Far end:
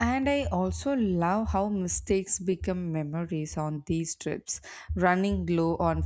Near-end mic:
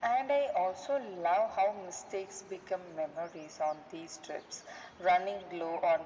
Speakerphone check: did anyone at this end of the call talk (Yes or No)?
No